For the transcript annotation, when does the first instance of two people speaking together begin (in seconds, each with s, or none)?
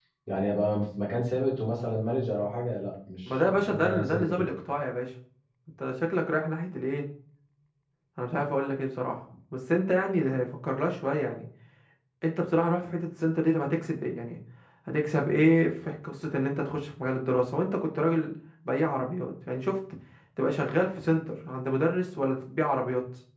3.3 s